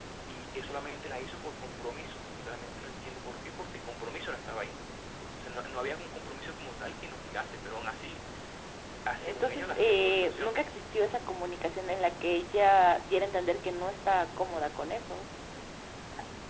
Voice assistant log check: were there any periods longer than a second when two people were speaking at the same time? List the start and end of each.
9.2-10.6

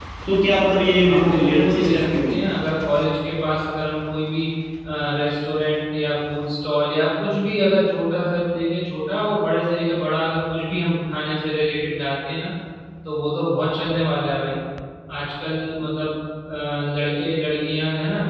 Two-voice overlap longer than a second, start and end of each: 1.1-2.3

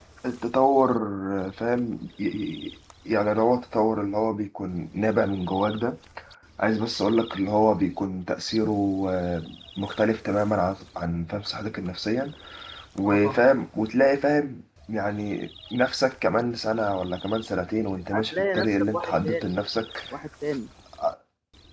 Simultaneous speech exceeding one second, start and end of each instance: 18.1-19.5

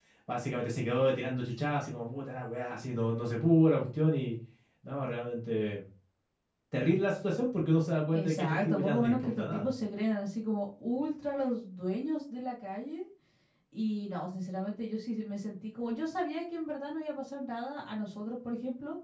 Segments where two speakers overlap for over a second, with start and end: 8.1-9.8

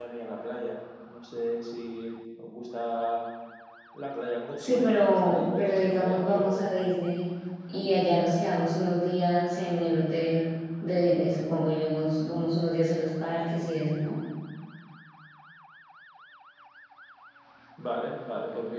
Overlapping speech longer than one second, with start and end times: 4.6-6.9

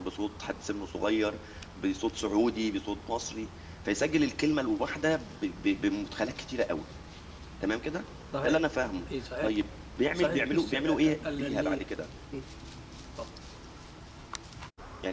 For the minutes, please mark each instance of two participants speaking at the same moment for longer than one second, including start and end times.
10.2-11.8

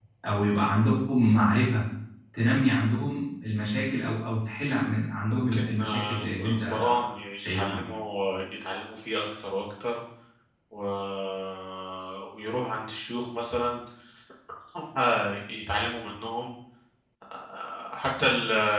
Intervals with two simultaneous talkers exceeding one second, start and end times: 5.3-6.9

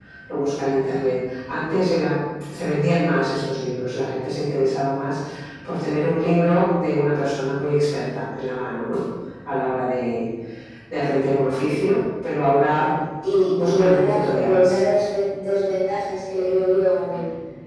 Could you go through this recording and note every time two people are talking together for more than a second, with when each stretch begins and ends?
13.5-14.8

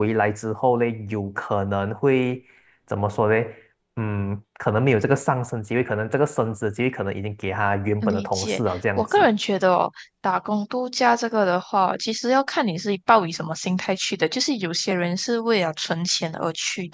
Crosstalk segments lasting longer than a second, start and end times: 8.0-9.3

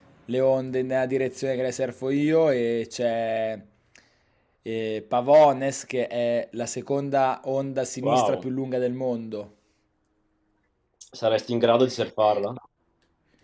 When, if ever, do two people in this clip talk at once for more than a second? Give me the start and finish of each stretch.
none

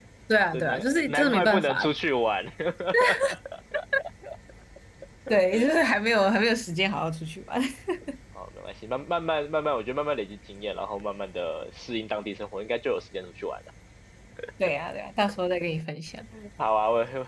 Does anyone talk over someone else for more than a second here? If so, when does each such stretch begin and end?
0.5-1.9

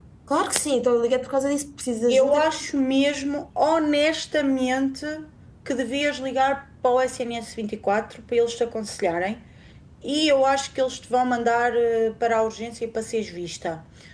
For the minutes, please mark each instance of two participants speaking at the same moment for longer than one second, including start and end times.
none

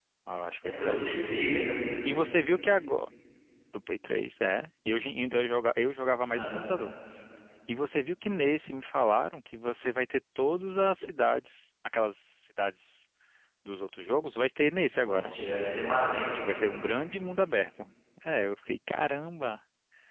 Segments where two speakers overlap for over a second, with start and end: none

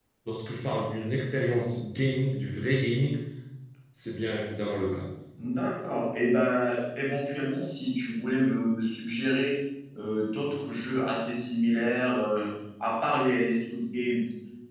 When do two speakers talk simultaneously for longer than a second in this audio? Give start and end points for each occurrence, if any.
none

